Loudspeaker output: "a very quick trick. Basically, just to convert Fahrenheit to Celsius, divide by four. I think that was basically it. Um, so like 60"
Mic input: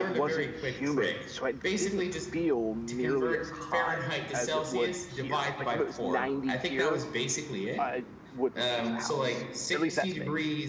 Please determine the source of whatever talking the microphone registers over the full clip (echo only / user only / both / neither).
both